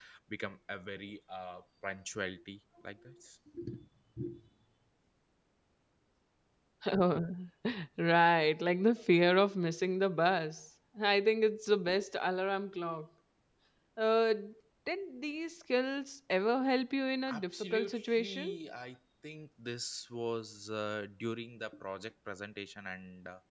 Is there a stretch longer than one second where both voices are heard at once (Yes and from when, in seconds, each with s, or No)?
Yes, from 17.3 s